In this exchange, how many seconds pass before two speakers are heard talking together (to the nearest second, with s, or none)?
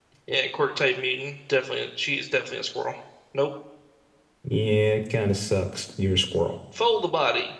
none